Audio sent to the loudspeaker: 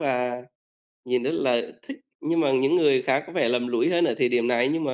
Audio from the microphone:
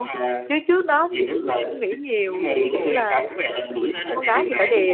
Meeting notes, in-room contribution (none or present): present